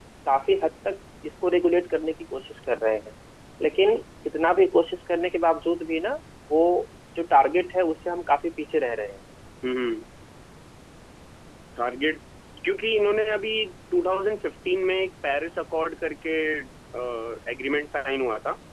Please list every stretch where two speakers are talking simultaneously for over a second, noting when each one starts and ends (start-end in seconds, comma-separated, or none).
none